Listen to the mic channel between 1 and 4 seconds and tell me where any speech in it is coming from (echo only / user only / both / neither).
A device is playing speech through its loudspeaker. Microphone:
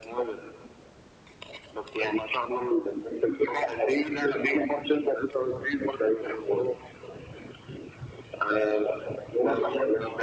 echo only